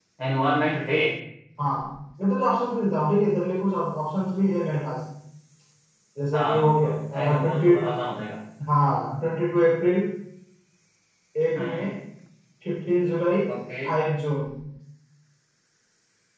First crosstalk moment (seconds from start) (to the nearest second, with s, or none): 6 s